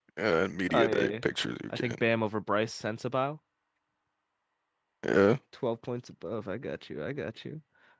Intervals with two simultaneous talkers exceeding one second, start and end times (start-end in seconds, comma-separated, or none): none